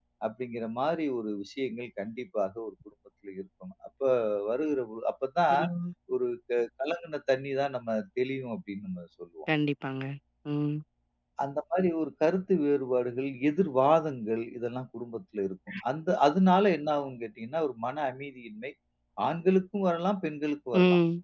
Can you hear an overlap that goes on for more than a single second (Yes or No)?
No